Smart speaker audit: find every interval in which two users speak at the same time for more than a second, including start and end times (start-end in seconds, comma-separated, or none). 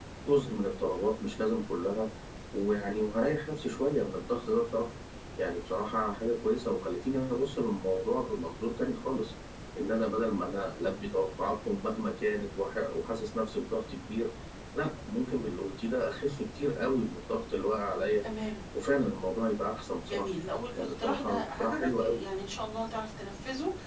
20.8-22.2